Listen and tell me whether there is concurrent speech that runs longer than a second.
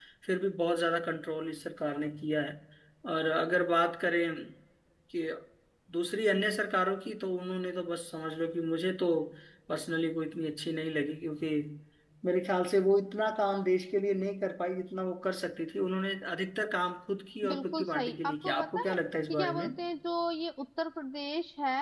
Yes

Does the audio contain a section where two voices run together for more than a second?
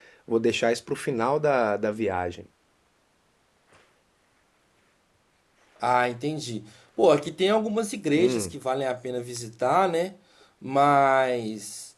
No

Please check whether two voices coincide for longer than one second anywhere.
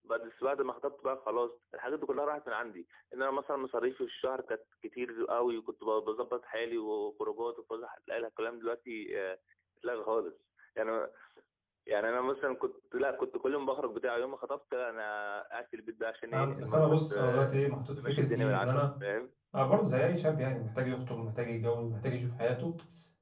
Yes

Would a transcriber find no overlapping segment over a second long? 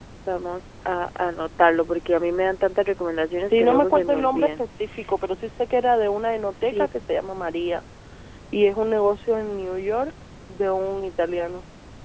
No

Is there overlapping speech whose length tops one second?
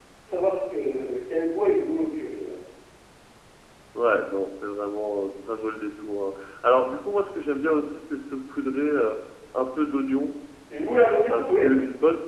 No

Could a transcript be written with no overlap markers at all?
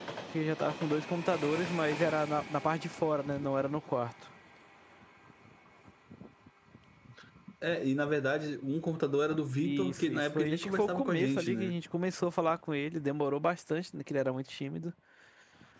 No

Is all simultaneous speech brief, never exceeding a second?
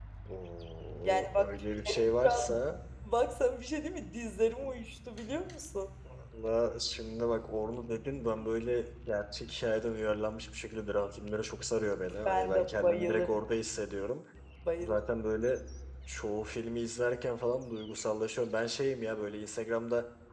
No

